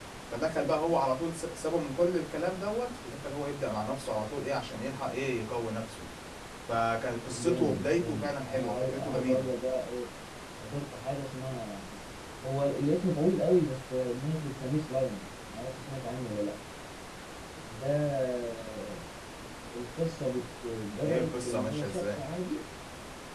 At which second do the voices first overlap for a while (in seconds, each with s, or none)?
7.3 s